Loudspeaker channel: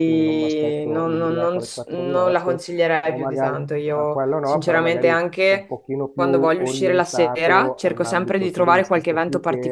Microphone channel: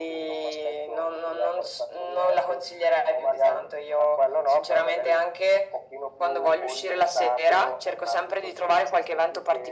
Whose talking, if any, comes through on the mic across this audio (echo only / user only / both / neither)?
echo only